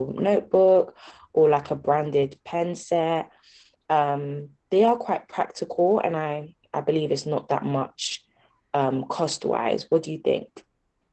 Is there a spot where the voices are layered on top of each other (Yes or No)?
No